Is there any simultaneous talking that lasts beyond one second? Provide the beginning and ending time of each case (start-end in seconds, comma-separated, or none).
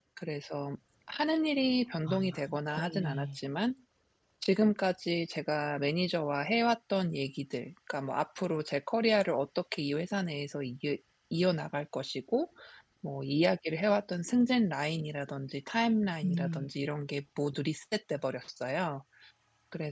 2.1-3.4